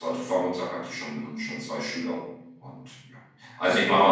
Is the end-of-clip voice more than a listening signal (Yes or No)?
No